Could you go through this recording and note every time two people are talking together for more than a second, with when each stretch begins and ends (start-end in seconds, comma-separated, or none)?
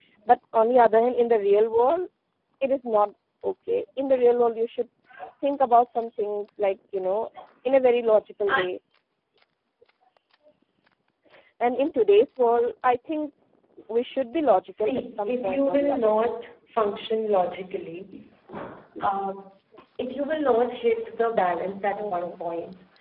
14.7-16.3